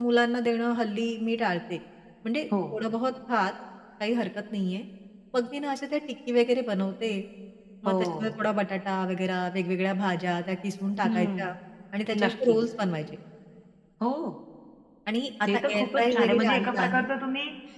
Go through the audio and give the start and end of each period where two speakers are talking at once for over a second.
15.4-17.0

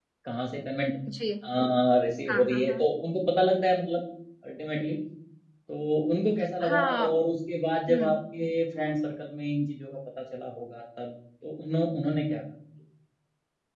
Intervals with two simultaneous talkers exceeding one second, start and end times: none

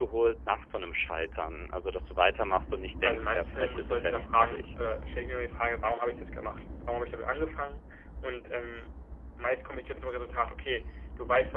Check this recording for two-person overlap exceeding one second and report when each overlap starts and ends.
3.0-4.7

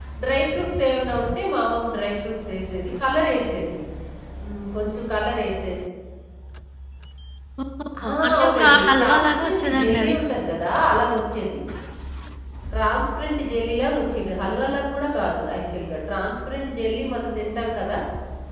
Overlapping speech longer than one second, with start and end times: 8.1-10.2

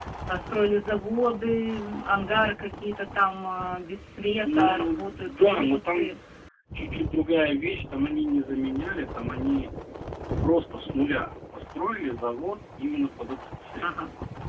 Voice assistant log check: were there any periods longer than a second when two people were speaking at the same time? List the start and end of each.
4.4-6.1

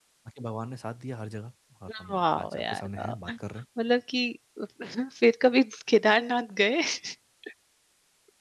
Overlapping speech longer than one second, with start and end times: 2.1-3.3

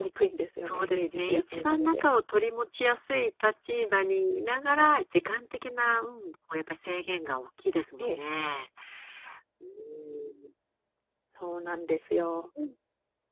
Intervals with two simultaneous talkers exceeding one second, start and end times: 0.6-2.0

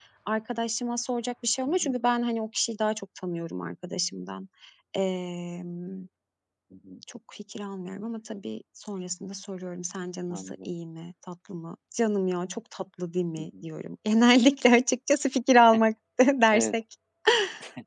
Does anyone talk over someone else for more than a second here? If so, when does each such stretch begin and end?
none

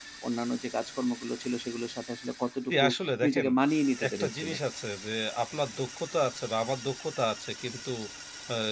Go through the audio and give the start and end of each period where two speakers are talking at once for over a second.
none

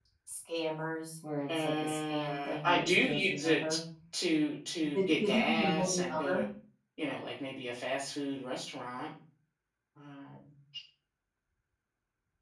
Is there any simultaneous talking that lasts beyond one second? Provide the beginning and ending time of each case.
1.5-3.7, 4.9-6.5

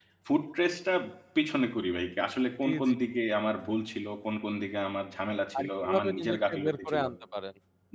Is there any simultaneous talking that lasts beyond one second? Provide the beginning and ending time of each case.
5.6-7.0

